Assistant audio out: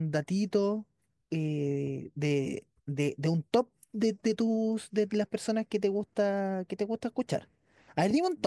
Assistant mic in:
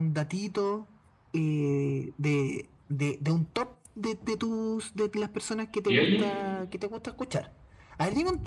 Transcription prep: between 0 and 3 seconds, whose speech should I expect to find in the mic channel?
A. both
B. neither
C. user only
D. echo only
D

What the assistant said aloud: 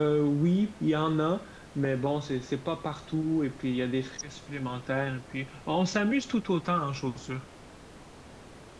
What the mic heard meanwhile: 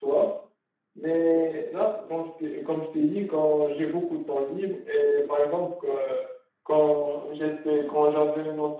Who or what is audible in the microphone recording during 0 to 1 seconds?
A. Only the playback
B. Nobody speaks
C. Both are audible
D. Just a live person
D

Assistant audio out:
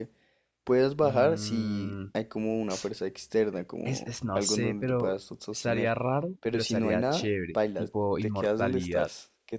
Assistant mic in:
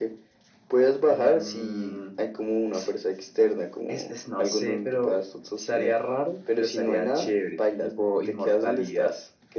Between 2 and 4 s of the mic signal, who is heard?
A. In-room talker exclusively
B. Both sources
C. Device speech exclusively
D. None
C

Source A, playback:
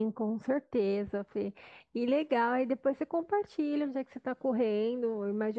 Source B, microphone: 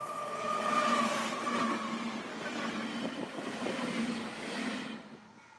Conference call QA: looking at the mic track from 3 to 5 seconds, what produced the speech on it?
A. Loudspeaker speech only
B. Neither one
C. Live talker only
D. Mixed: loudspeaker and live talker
B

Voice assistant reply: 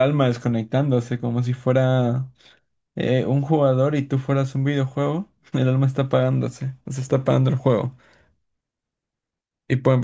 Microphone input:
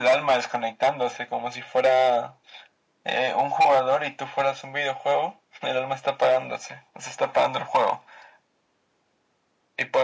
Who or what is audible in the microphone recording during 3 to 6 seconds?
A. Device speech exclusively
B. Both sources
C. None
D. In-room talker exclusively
A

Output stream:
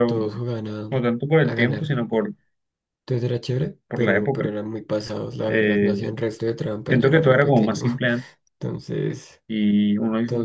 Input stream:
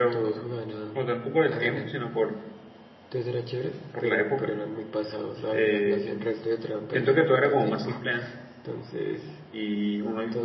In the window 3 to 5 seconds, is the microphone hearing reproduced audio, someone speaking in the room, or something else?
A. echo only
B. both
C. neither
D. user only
A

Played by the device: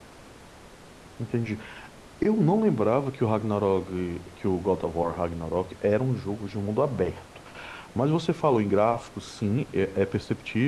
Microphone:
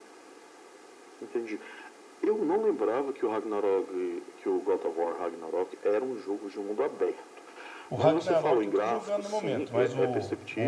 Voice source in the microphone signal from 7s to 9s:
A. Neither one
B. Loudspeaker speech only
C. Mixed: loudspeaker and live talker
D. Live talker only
C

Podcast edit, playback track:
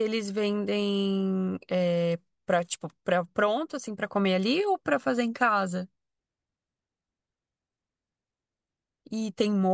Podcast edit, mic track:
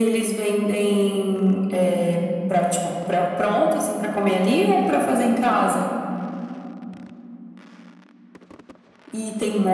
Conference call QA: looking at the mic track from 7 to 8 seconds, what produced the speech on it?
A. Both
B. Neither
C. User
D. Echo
B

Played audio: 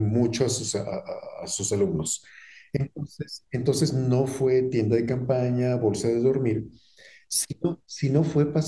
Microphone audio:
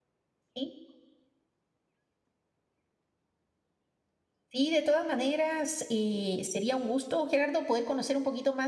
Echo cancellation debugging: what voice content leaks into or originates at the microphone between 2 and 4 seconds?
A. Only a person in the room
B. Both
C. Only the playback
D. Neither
D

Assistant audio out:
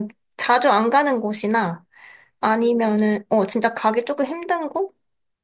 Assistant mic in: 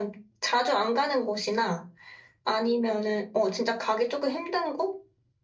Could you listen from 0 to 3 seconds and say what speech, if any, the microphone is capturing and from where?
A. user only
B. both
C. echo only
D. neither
C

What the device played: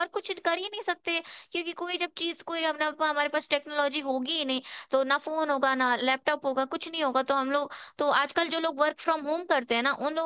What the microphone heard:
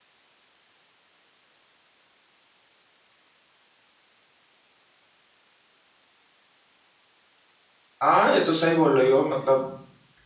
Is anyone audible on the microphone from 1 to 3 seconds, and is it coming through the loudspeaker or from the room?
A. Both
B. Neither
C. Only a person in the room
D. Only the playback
B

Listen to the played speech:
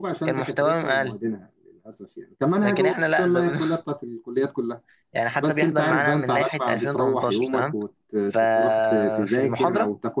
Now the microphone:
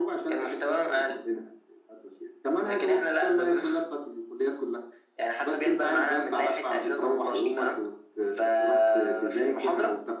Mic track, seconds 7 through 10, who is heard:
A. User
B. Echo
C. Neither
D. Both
B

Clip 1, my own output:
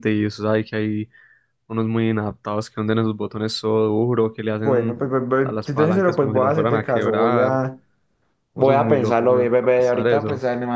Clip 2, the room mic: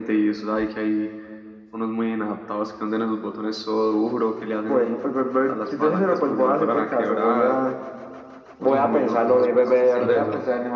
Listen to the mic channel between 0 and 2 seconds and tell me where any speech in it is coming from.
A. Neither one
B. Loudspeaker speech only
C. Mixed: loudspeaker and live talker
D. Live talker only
B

